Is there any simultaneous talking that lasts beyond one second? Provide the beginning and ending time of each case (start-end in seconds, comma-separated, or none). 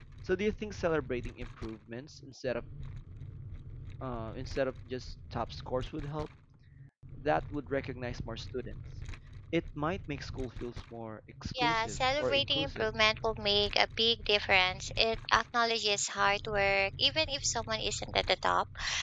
11.5-12.9